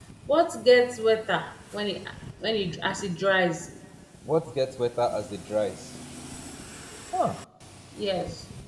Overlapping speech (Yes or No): No